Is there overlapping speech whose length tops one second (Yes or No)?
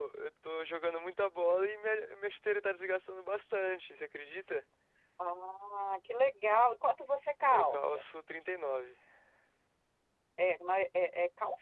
No